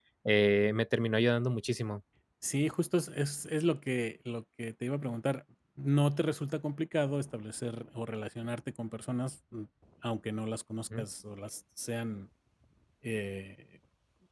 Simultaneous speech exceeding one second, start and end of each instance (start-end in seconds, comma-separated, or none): none